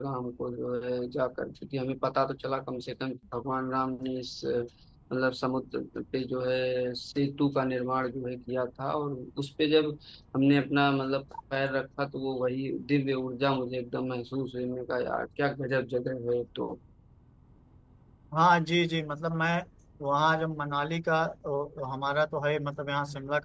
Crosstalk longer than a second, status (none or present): none